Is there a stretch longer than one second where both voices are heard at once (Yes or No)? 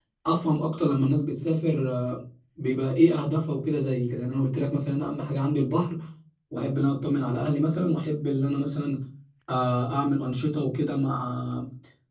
No